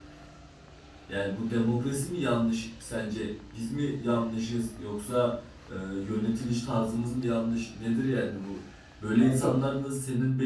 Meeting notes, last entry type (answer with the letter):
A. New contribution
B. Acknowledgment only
B